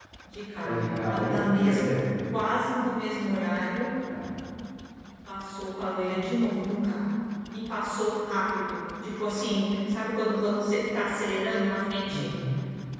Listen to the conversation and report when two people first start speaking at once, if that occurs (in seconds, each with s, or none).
0.6 s